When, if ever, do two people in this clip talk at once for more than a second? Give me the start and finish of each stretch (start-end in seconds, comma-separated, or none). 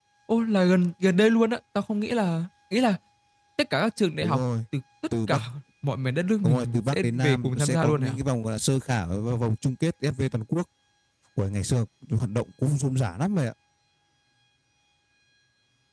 6.4-8.1